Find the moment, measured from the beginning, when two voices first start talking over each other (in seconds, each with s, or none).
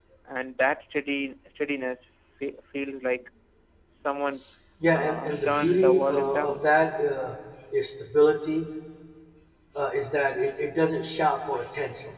4.9 s